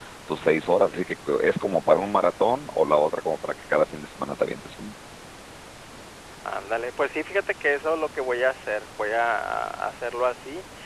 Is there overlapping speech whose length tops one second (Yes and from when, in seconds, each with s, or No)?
No